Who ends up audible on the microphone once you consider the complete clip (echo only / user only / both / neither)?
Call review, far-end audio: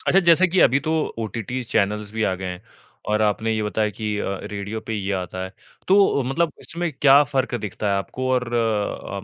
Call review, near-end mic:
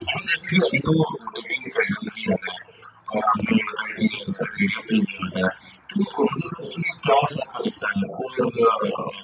echo only